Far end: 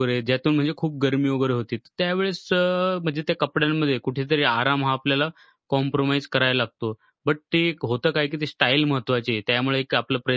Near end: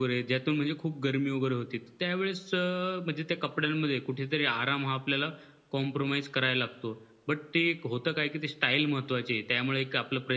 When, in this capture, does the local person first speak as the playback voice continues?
none

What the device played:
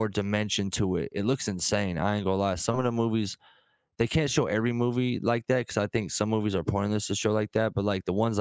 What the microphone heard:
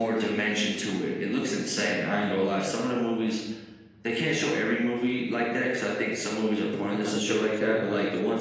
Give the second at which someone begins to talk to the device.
7 s

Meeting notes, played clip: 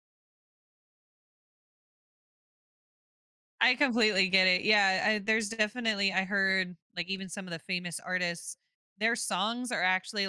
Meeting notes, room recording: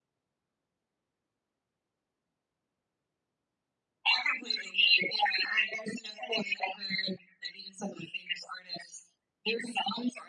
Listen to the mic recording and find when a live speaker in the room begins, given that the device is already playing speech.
none

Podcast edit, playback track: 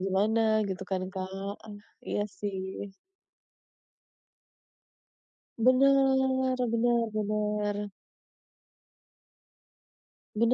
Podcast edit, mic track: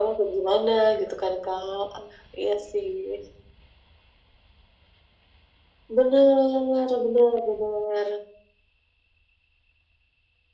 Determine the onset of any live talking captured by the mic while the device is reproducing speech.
none

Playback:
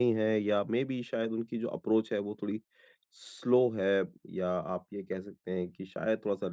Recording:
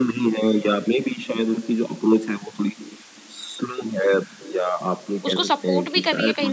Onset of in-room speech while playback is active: 5 s

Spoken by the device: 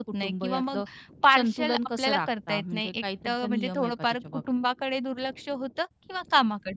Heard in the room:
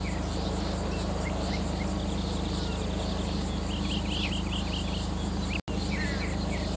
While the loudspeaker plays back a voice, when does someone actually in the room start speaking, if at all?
none

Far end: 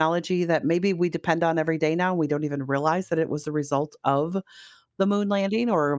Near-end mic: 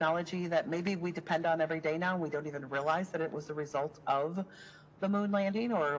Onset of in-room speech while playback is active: none

